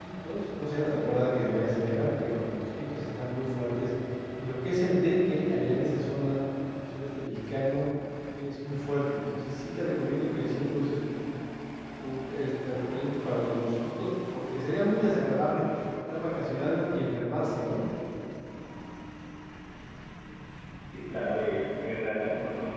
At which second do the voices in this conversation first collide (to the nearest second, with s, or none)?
none